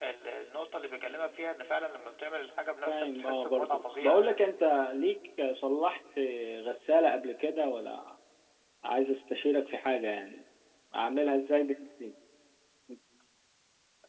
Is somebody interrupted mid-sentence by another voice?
Yes, from 2.9 s

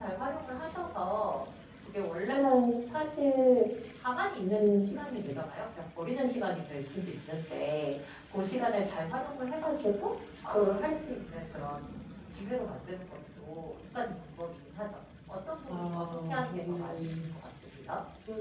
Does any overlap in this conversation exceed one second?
Yes, from 15.7 s

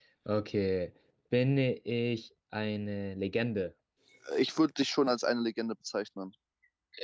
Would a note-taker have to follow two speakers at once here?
No

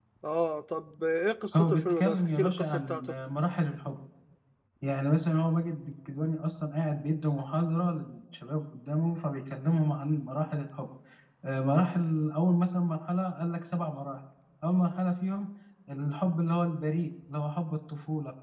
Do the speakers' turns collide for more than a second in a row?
Yes, from 1.5 s

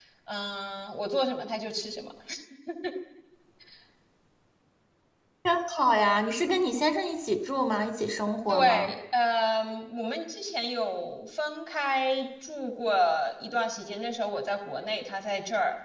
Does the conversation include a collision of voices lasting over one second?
No

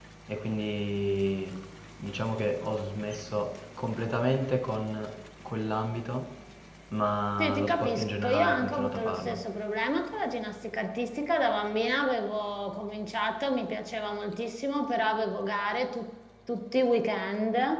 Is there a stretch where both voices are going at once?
Yes, from 7.4 s

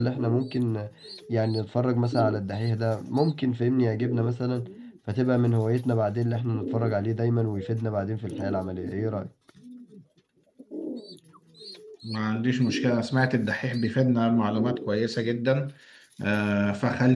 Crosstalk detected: No

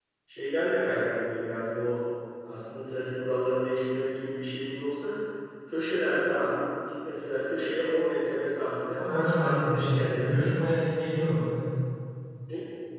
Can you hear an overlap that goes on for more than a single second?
Yes, from 9.0 s

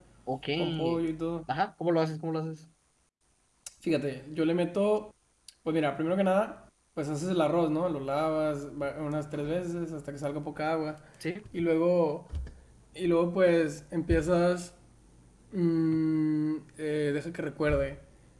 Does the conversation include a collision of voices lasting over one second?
No

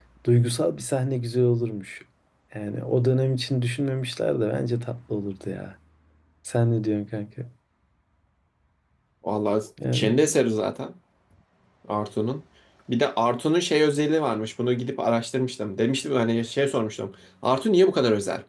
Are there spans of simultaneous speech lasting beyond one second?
No

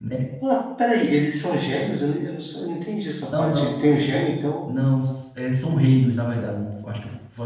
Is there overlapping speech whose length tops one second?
No

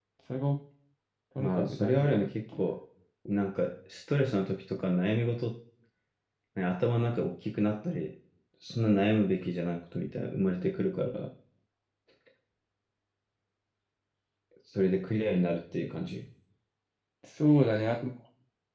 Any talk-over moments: Yes, from 1.4 s

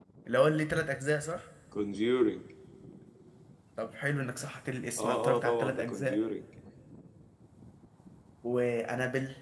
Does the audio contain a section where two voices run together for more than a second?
Yes, from 5.0 s

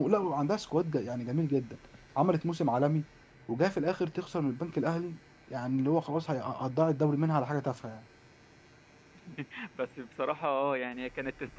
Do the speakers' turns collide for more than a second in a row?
No

